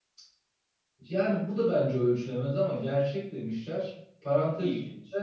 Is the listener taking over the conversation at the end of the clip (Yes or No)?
No